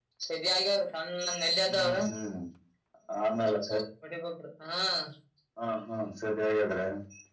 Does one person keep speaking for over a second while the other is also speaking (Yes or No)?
No